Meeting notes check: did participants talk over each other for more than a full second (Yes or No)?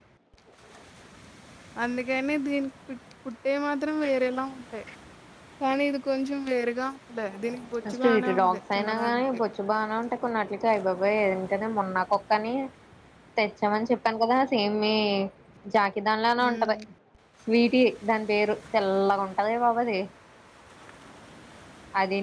Yes